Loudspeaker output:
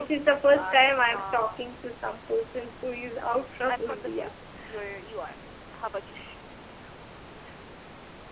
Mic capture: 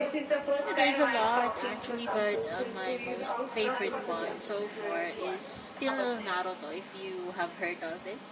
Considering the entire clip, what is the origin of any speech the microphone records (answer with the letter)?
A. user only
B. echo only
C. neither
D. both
D